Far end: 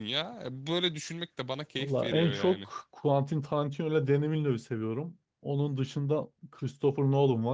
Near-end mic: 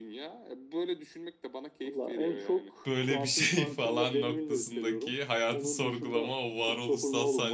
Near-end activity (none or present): present